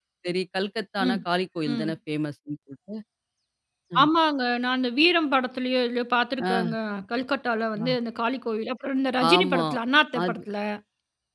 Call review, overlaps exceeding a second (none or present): none